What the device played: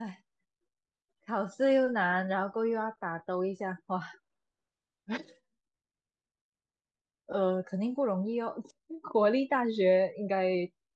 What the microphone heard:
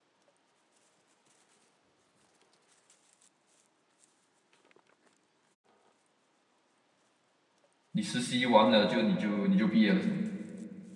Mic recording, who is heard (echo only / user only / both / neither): user only